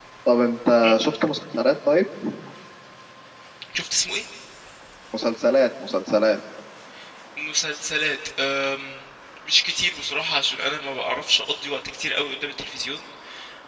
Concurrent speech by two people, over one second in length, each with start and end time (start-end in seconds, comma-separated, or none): none